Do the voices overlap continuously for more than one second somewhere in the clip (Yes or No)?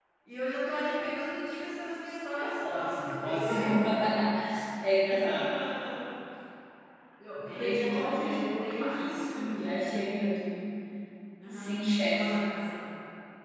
Yes